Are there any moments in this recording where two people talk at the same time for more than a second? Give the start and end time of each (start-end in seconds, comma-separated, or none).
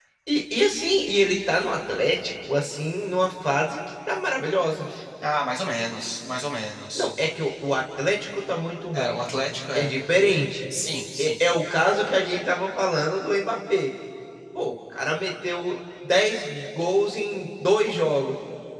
none